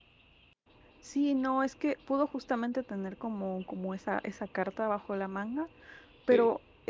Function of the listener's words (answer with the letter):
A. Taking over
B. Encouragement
B